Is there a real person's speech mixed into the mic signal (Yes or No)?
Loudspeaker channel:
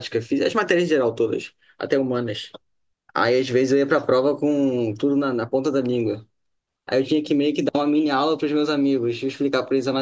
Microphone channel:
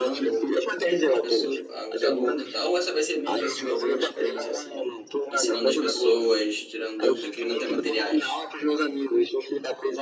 Yes